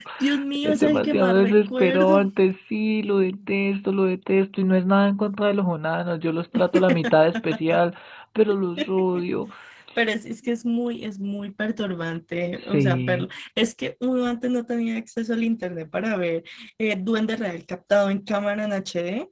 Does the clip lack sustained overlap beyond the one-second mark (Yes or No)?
No